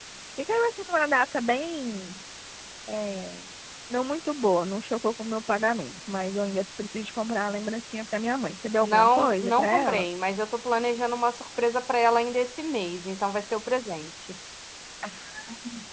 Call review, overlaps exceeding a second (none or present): present